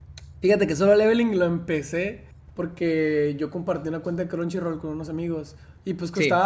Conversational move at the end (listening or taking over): listening